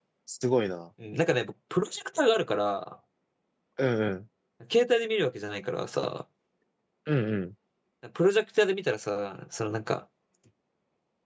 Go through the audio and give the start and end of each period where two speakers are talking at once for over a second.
none

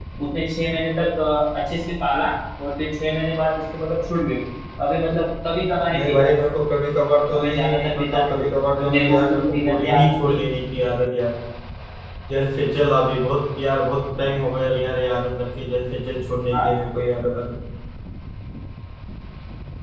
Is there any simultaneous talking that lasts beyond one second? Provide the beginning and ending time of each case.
7.3-10.4

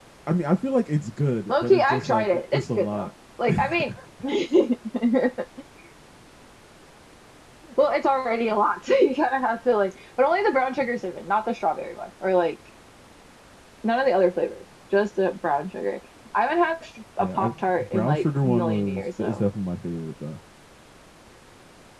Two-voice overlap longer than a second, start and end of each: 1.5-3.1, 17.2-19.4

